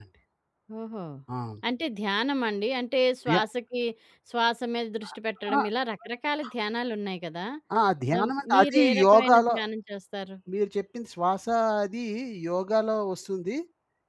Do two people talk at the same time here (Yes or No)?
Yes